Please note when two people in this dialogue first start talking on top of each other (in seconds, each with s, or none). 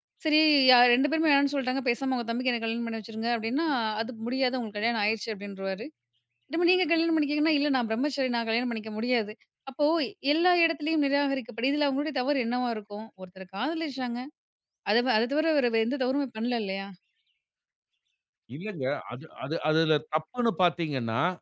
none